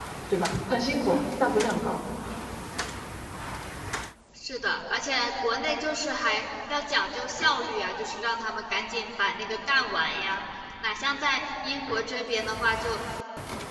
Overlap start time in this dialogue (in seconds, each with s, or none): none